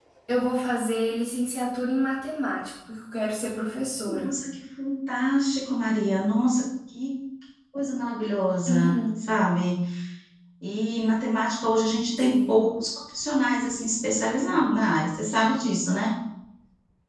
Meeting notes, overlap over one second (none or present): none